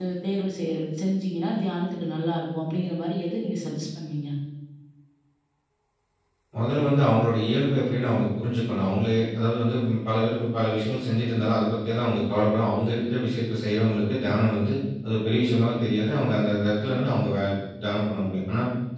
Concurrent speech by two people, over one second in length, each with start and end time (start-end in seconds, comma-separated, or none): none